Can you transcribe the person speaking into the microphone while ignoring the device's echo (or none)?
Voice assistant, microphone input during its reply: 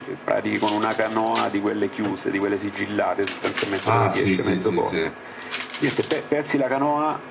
Ah, sì, sì, sì, sì.